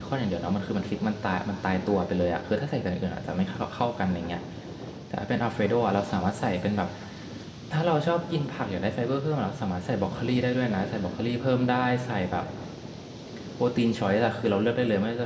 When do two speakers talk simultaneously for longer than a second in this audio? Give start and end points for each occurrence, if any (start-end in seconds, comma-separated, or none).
none